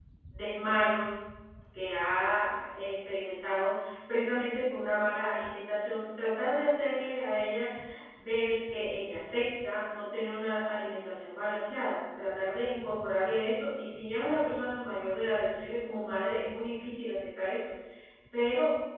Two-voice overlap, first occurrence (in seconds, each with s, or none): none